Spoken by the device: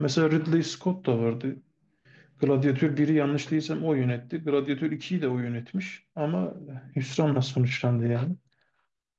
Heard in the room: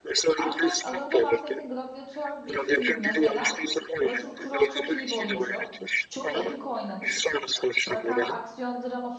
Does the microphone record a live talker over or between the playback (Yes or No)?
Yes